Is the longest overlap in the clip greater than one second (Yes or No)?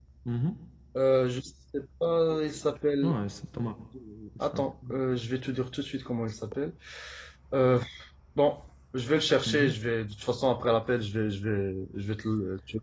No